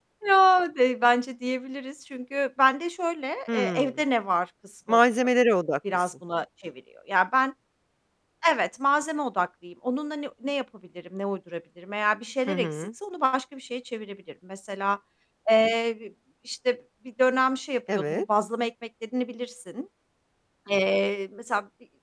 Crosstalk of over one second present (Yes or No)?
No